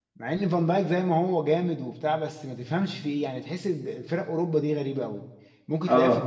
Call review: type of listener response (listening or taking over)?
listening